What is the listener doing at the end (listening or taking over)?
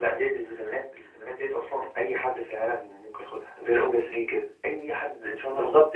taking over